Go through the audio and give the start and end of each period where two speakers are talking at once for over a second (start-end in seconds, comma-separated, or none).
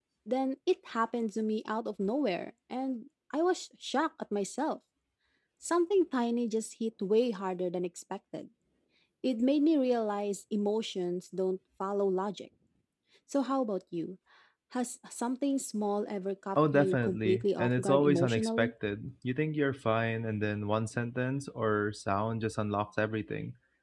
16.6-18.7